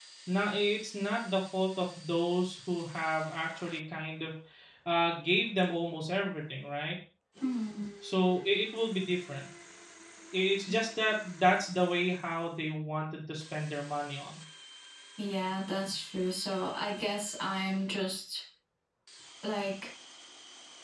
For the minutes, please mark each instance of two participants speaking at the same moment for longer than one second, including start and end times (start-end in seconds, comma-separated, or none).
none